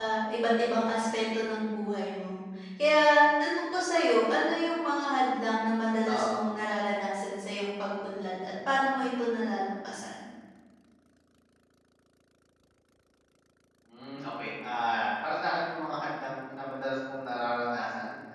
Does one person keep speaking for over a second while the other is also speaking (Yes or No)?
No